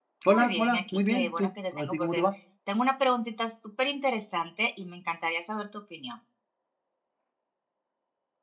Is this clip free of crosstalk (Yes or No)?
No